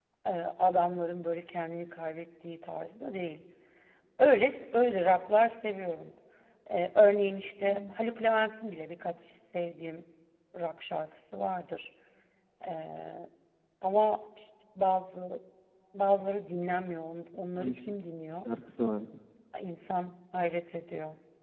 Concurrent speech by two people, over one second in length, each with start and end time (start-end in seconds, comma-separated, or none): none